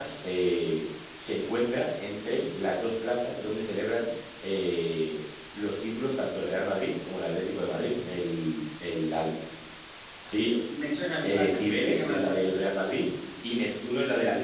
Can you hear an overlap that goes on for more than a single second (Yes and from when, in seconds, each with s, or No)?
Yes, from 11.2 s